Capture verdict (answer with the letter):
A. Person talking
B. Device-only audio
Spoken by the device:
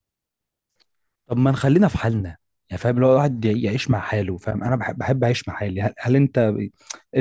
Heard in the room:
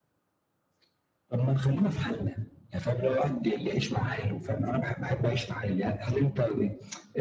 B